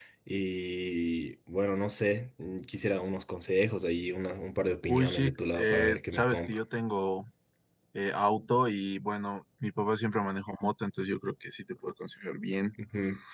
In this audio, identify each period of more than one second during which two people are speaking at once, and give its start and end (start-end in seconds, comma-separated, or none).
4.9-6.6